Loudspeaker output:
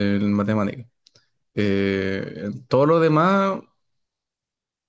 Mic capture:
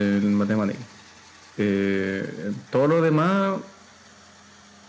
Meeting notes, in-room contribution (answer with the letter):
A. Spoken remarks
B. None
B